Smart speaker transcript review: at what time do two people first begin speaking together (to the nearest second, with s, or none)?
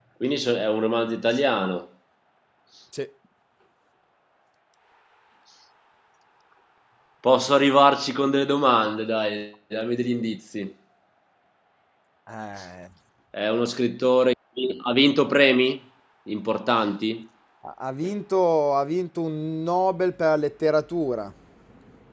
none